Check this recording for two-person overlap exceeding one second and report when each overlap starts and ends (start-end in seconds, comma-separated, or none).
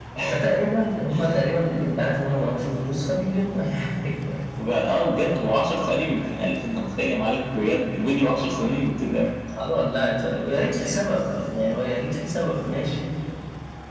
none